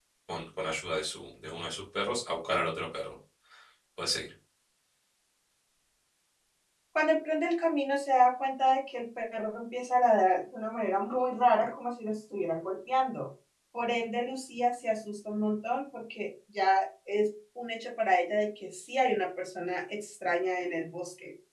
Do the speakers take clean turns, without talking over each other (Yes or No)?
Yes